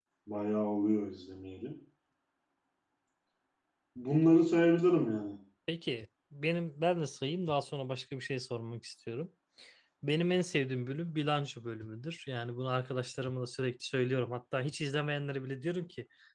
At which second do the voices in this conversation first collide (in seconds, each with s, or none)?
none